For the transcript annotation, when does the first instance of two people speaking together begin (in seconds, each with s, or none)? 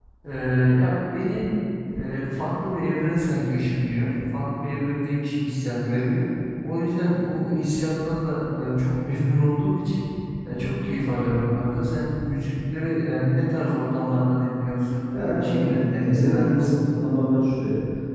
15.1 s